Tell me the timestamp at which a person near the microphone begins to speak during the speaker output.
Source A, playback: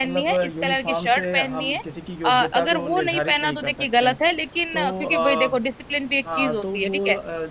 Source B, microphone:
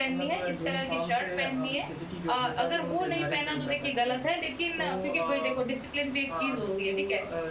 3 s

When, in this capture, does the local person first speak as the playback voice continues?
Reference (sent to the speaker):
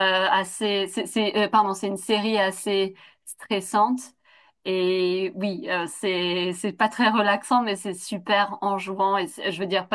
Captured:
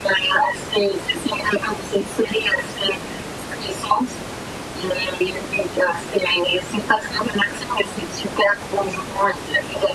none

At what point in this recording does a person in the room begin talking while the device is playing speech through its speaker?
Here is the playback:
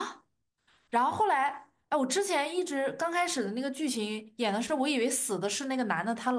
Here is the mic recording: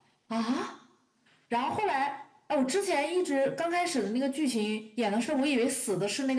none

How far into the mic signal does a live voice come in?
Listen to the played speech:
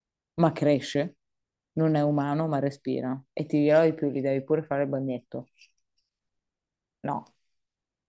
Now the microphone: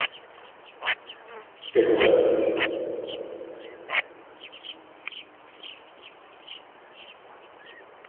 2 s

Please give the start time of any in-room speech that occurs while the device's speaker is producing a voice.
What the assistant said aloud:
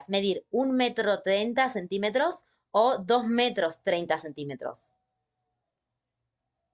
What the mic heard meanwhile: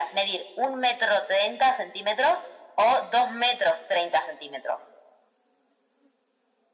none

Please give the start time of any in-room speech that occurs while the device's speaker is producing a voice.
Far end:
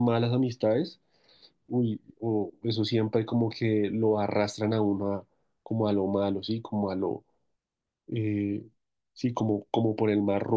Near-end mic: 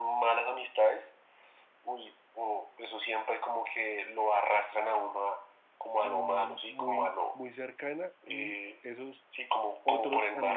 6 s

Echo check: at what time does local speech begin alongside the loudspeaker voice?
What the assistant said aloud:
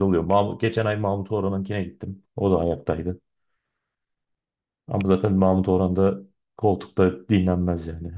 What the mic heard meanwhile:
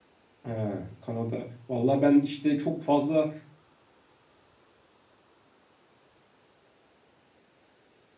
0 s

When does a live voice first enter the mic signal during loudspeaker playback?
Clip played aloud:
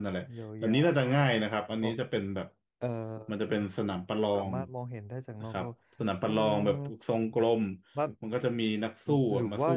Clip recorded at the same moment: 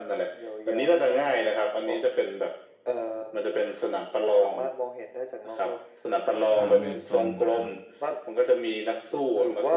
7 s

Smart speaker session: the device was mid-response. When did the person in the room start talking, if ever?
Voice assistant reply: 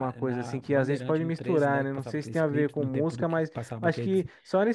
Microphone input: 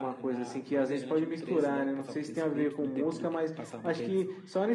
none

